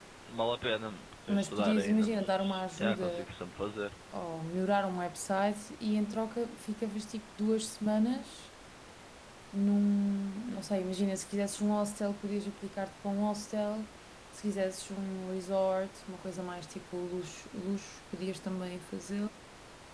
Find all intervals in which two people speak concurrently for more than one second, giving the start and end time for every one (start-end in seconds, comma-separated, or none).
1.3-3.3